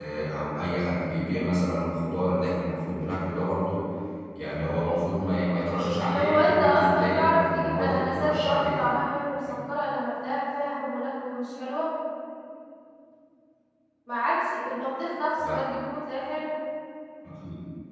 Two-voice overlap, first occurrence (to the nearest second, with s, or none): 6 s